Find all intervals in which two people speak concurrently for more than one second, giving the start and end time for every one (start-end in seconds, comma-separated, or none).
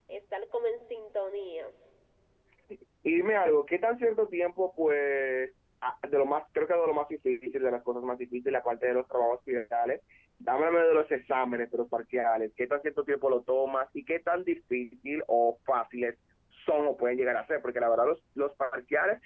none